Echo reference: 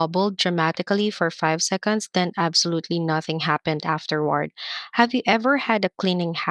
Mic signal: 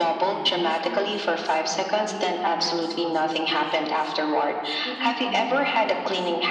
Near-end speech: present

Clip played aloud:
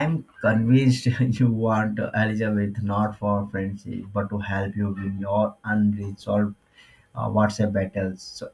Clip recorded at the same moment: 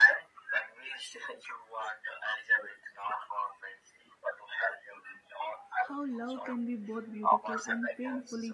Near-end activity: present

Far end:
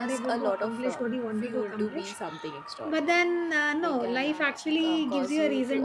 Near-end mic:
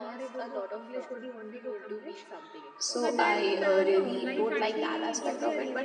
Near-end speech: present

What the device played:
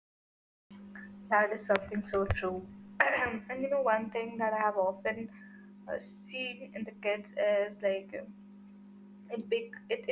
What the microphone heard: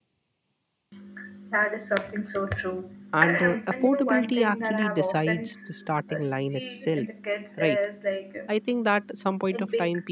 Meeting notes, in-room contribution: present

